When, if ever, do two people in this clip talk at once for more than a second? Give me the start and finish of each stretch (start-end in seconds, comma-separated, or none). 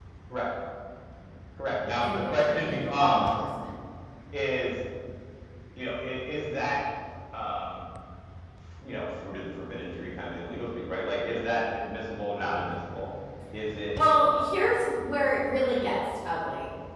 2.0-3.3